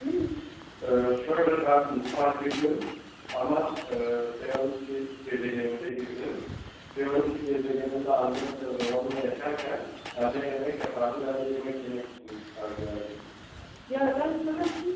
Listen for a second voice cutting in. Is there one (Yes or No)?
No